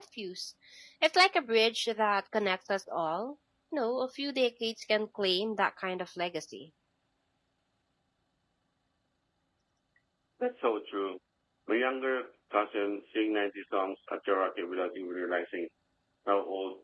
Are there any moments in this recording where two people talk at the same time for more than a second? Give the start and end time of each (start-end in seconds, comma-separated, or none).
none